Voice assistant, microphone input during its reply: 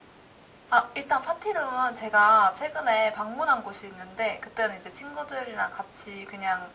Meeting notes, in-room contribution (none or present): none